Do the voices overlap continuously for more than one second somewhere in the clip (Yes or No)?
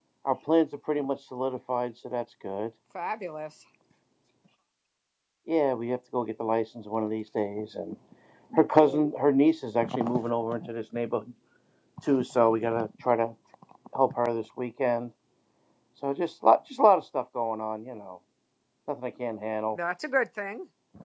No